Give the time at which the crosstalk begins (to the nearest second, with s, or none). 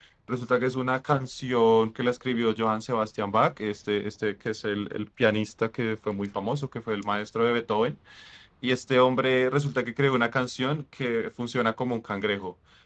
none